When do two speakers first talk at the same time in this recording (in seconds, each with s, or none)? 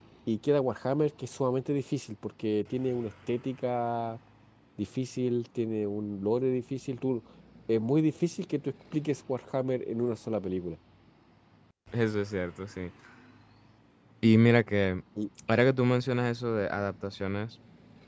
none